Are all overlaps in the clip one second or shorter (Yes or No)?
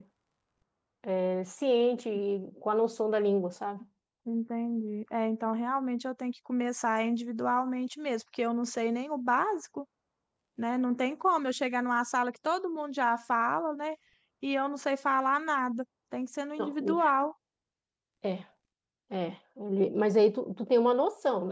Yes